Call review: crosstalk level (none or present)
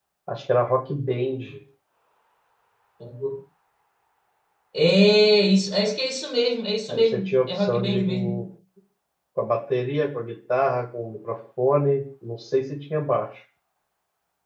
present